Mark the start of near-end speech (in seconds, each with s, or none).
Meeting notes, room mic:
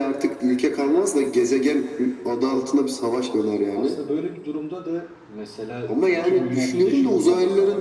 3.7 s